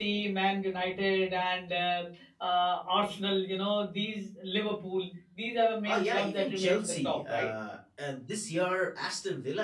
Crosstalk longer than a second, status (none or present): present